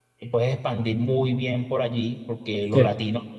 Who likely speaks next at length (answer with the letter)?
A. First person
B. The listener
A